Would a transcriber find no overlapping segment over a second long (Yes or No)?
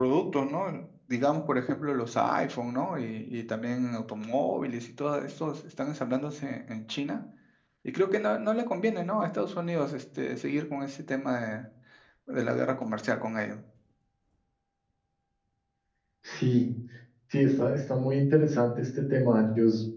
Yes